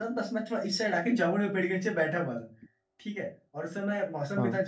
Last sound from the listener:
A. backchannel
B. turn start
A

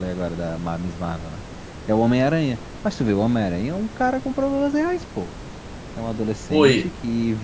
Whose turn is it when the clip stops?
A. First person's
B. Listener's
A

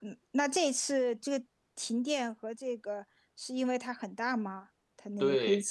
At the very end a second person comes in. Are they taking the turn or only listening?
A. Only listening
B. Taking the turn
B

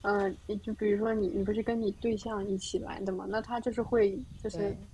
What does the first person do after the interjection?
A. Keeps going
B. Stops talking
A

